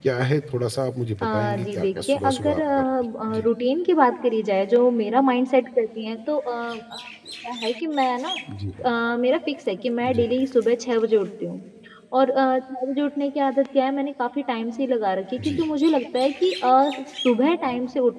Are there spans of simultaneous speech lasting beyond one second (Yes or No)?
Yes